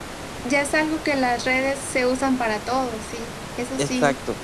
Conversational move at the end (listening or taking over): taking over